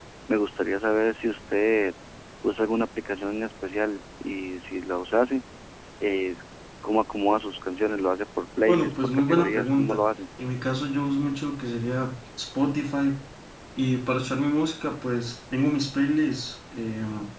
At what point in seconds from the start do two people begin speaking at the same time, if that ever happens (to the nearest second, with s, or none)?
9 s